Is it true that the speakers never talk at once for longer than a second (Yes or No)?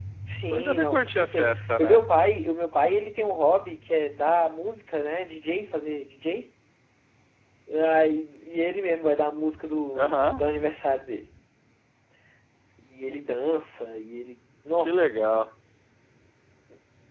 No